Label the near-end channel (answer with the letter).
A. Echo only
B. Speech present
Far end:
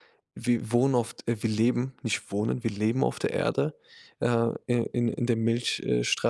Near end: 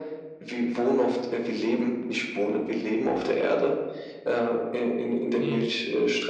B